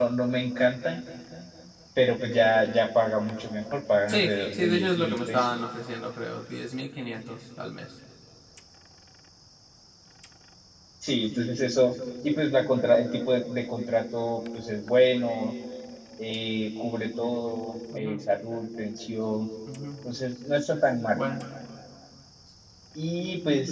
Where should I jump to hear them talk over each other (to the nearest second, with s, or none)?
4 s